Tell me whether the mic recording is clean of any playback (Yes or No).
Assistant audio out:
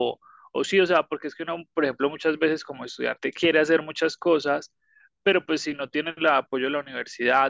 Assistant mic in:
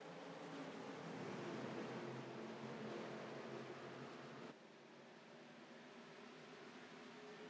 Yes